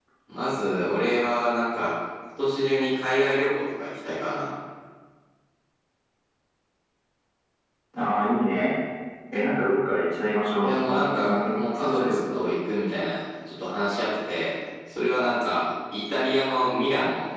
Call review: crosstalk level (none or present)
present